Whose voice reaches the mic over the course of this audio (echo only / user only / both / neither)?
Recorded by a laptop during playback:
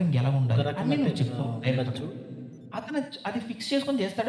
both